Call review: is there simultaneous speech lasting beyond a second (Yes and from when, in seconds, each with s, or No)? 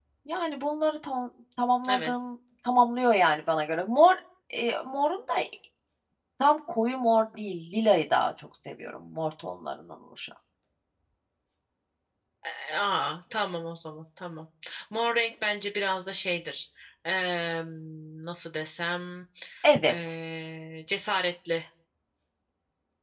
No